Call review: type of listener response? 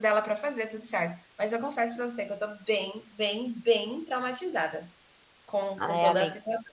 taking over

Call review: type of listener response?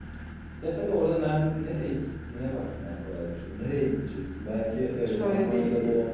taking over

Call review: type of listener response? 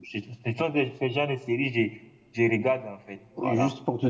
taking over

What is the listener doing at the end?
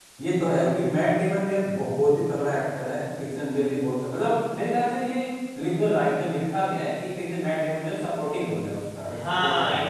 taking over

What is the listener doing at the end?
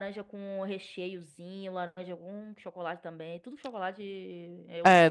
taking over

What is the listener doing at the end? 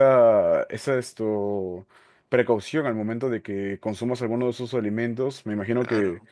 listening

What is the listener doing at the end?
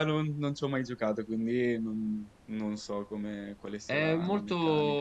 taking over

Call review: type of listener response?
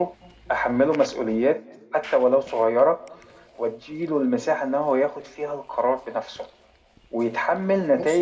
listening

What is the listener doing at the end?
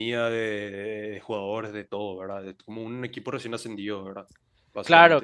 taking over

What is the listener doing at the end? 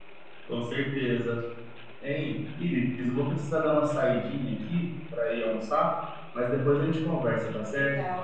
taking over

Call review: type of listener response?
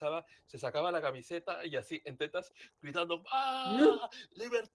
listening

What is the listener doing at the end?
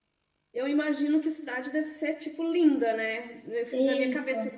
listening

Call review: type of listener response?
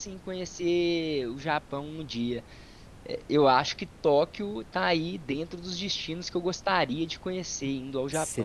taking over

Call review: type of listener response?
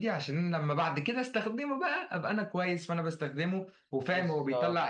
listening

